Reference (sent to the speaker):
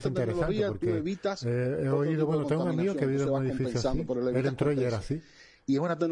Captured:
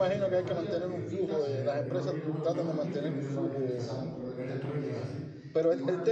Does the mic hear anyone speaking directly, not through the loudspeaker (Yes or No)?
Yes